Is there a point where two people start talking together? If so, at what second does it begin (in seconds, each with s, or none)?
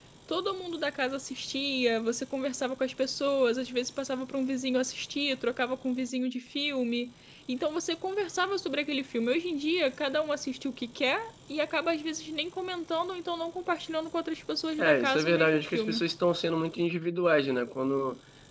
14.8 s